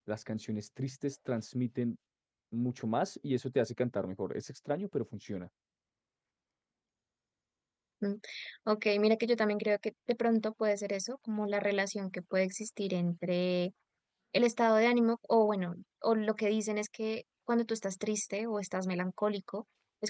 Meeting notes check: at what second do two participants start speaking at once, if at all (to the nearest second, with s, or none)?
none